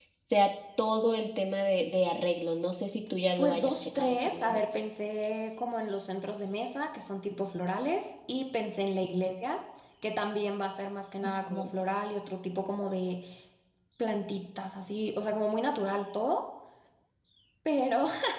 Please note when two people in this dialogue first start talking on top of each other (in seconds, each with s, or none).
3.4 s